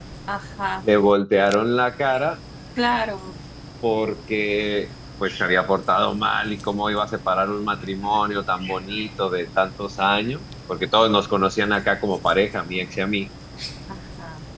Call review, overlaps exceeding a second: none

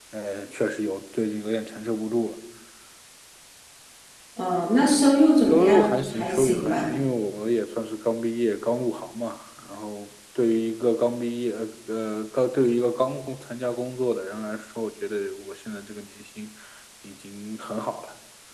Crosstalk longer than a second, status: present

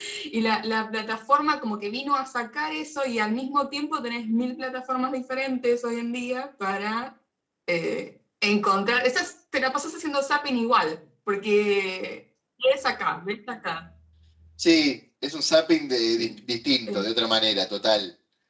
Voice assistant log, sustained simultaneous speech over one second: none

